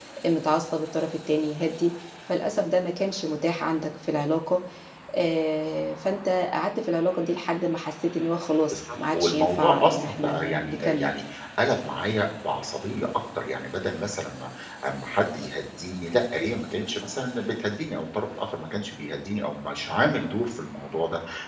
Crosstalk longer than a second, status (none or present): present